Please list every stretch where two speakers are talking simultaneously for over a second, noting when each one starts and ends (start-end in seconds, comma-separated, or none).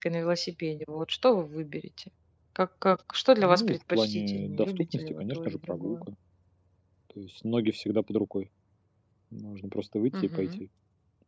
3.4-6.0